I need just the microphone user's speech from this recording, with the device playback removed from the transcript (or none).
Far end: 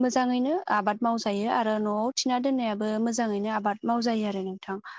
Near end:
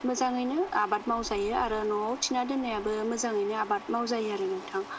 none